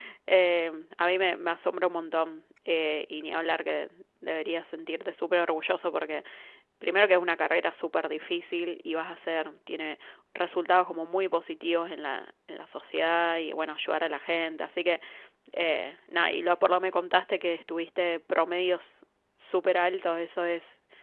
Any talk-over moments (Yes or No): No